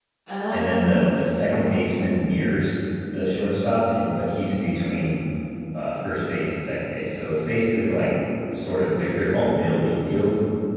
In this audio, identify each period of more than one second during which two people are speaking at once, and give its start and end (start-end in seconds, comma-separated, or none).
0.5-1.9